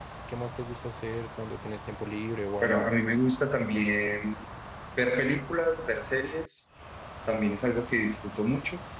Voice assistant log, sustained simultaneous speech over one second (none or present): none